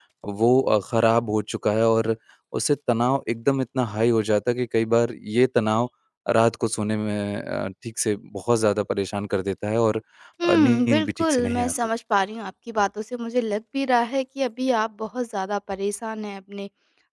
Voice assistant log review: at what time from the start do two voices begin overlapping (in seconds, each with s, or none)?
10.5 s